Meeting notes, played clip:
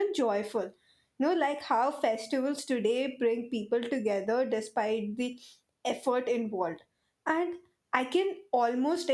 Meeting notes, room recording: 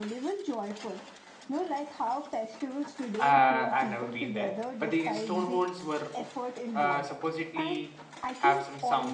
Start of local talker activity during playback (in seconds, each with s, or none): 3.2 s